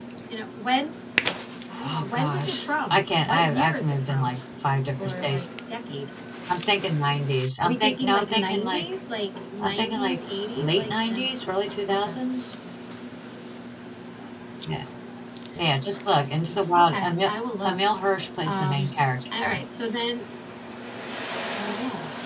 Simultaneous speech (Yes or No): Yes